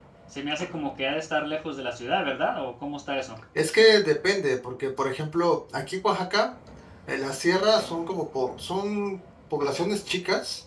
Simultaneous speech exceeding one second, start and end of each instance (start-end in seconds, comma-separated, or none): none